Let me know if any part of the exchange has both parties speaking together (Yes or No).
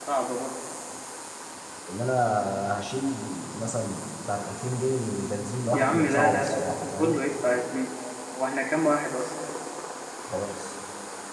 Yes